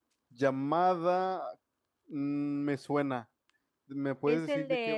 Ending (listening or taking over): taking over